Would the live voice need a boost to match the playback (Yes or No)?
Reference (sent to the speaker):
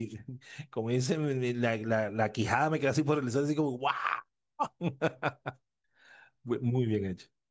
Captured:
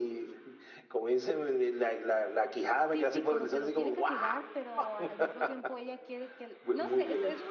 Yes